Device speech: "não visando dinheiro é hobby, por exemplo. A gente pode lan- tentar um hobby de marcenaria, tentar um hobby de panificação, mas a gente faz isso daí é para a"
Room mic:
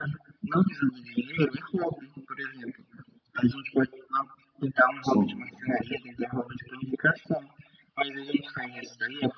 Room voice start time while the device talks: 5.0 s

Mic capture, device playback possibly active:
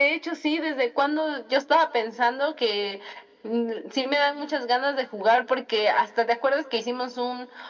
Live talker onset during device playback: none

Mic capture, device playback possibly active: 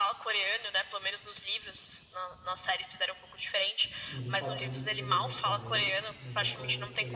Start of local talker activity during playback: 4.1 s

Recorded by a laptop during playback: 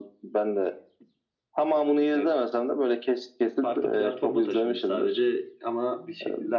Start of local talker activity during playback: none

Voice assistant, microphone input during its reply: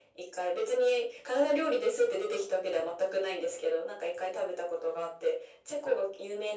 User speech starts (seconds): none

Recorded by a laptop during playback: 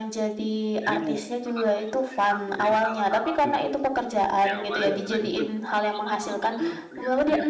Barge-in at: 0.8 s

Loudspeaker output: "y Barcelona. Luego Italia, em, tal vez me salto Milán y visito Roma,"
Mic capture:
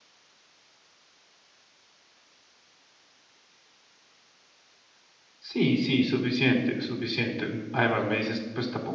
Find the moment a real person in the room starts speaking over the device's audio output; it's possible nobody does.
5.4 s

